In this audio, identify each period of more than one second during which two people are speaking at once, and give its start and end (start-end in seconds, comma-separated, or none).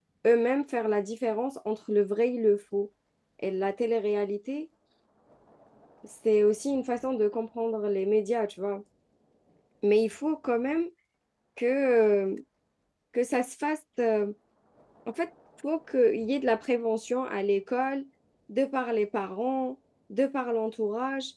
none